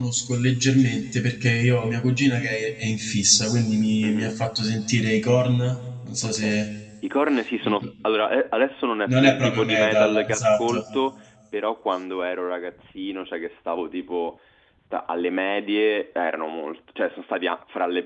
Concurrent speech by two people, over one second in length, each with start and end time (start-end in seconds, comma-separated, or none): 9.1-10.8